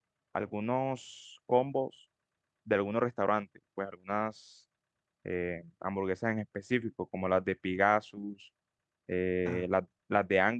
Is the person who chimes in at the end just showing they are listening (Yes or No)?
Yes